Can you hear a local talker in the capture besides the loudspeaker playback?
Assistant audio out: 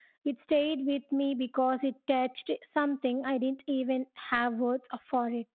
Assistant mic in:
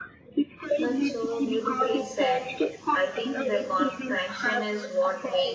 Yes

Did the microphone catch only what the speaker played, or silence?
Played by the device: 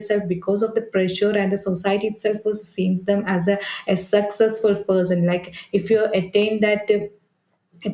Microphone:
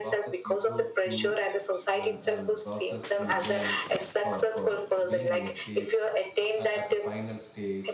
No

